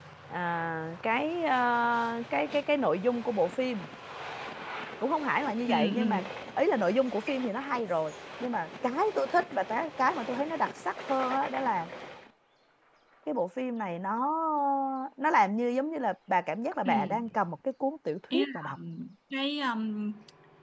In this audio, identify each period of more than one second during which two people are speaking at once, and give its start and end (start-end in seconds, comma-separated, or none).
none